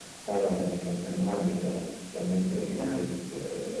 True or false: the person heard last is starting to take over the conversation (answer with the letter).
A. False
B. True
A